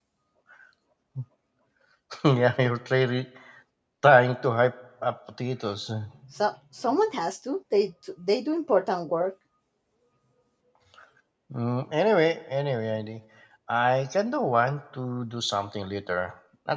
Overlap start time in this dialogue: none

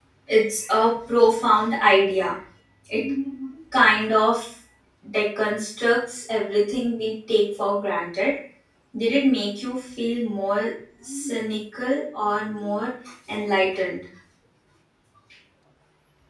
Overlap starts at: none

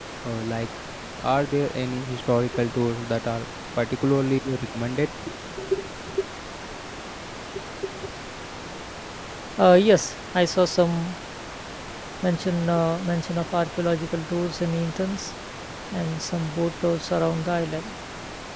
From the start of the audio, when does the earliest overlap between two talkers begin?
none

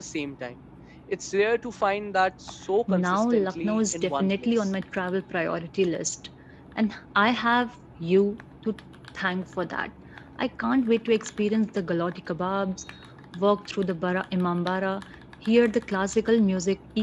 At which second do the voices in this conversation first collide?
2.9 s

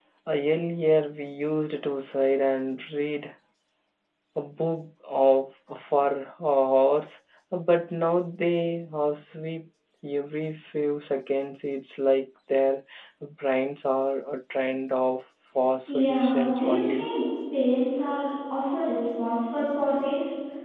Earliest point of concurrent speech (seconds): 15.9 s

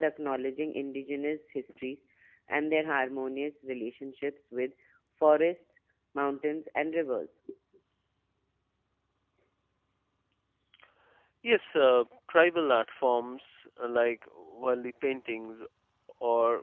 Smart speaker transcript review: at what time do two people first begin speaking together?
none

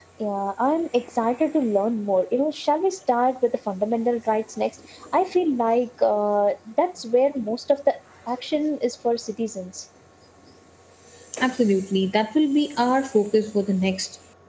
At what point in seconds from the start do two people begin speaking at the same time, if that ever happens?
none

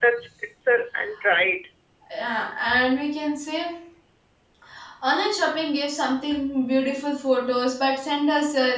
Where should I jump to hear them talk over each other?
none

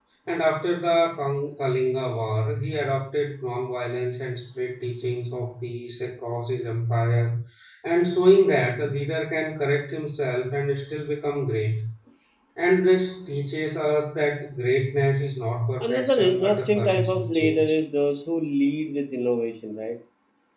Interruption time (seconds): 15.8 s

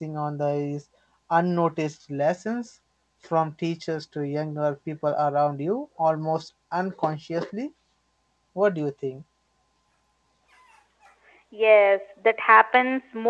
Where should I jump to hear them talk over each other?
none

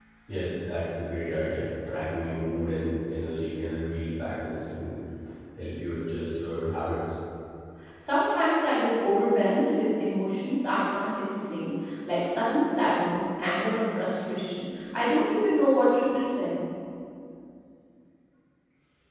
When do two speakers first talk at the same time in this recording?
none

